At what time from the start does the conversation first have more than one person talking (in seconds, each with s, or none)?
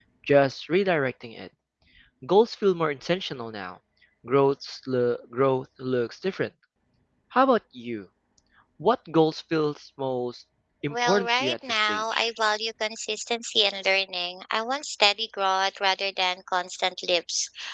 10.9 s